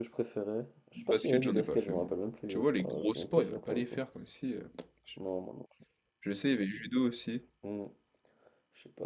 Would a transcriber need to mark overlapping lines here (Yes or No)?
Yes